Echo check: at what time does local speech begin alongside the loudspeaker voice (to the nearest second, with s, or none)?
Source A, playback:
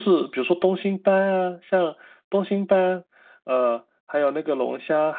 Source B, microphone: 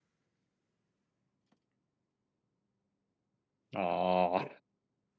4 s